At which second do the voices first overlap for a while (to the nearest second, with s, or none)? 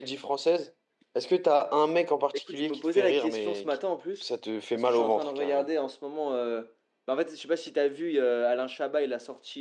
2 s